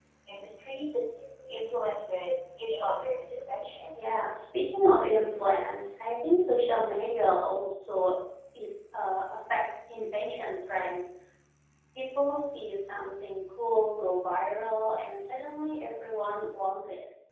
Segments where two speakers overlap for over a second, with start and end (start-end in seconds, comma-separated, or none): none